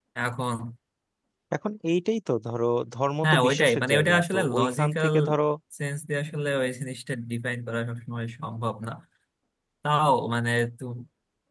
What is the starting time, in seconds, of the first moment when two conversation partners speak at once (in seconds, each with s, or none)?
3.2 s